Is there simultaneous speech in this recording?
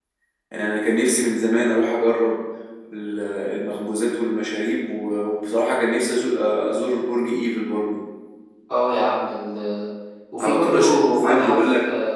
Yes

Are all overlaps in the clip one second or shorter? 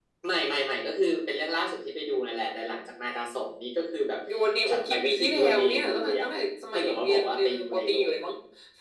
No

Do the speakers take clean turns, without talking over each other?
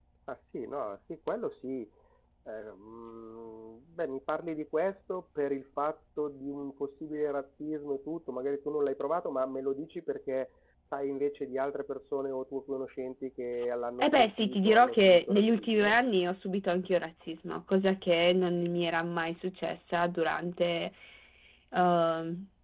No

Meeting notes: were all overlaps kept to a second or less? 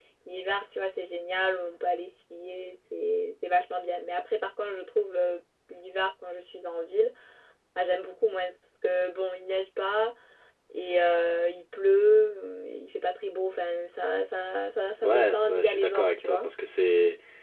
No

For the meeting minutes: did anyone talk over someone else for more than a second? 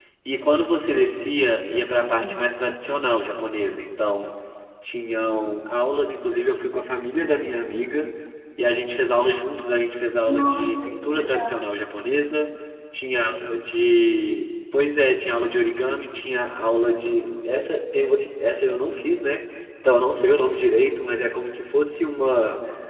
Yes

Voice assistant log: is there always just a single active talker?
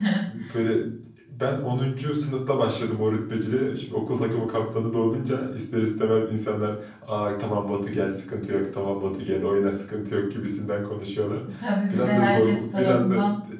No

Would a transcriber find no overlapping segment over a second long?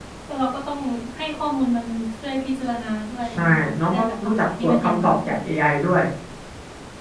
No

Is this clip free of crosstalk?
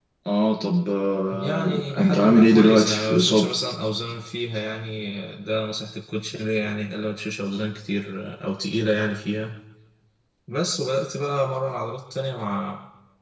No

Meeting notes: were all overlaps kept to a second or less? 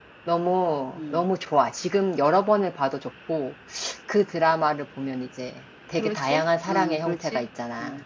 No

